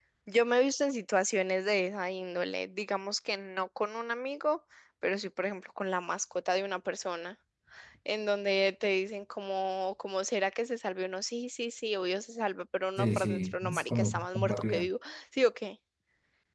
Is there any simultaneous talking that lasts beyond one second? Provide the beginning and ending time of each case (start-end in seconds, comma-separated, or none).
13.0-14.9